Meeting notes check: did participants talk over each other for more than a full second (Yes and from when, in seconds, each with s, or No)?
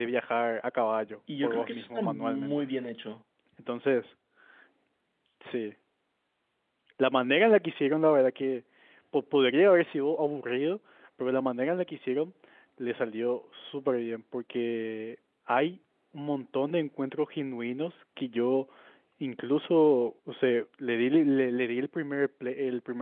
Yes, from 1.3 s